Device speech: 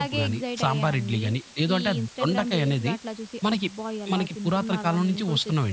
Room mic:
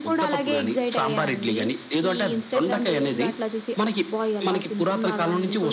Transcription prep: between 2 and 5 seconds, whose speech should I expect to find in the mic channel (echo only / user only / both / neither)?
echo only